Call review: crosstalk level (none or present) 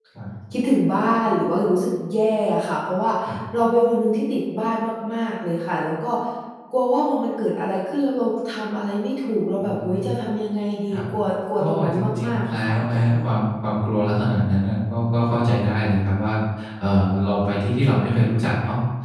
present